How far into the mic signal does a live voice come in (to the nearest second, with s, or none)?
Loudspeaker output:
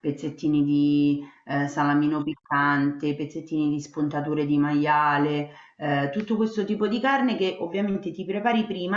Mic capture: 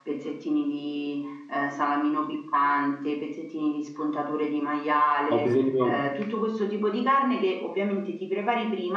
5 s